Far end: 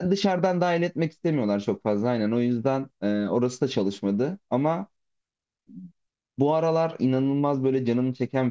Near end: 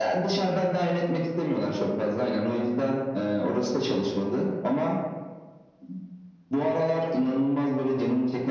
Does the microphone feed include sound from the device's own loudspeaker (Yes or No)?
Yes